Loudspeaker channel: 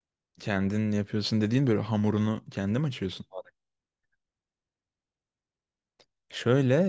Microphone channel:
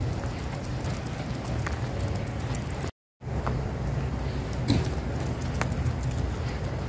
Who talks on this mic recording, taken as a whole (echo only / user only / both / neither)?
neither